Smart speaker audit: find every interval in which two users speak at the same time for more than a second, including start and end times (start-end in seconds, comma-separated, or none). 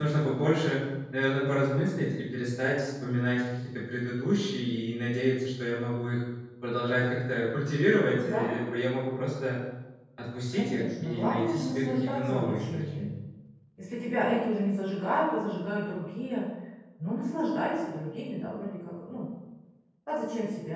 10.5-13.1